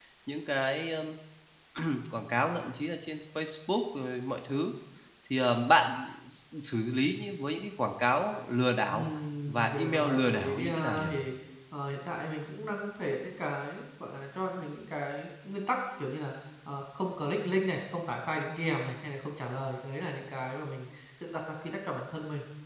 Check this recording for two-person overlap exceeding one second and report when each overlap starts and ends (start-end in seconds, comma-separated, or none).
9.5-11.1